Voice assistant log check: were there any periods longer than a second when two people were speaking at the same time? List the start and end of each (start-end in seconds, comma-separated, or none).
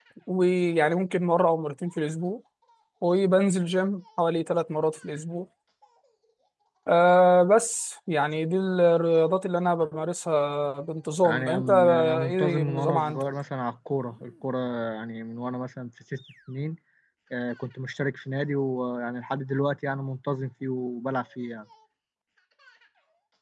11.2-13.3